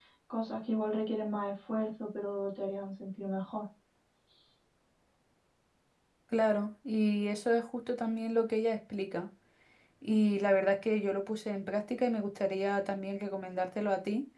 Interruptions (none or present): none